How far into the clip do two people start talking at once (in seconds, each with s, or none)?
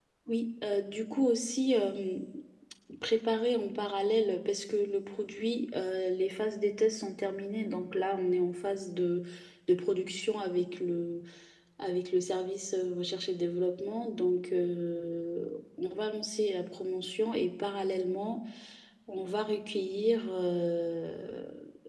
none